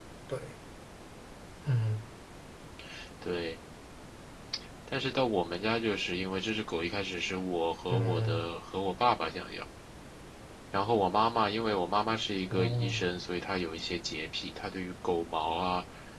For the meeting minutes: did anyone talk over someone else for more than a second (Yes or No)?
No